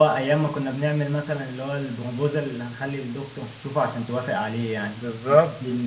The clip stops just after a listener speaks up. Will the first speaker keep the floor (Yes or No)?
Yes